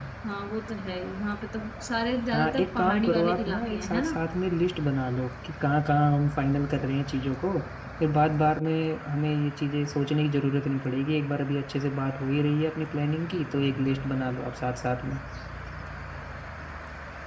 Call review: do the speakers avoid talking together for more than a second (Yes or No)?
No